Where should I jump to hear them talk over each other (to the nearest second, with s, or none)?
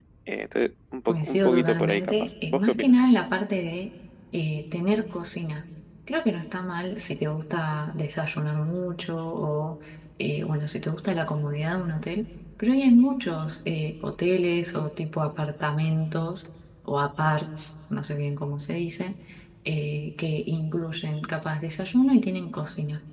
1 s